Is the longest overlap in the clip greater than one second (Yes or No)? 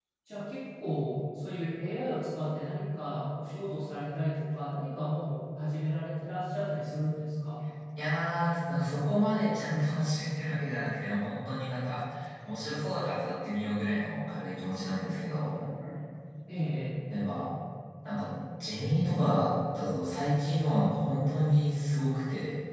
No